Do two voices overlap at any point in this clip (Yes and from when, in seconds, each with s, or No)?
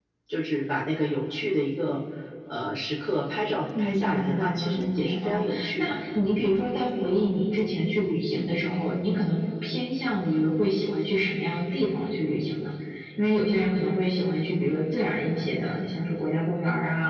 Yes, from 3.7 s